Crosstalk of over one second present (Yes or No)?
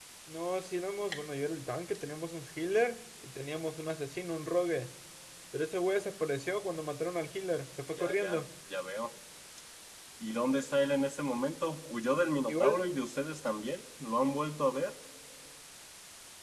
No